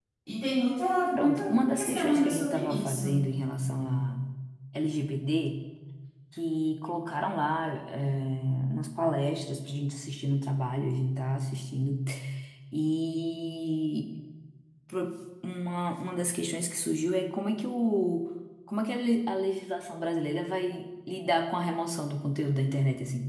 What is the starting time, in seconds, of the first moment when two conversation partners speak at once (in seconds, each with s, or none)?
1.1 s